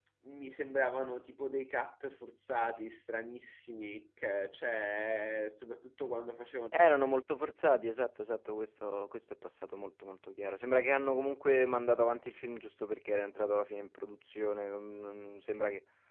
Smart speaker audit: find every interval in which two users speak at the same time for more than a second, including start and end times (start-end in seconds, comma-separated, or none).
none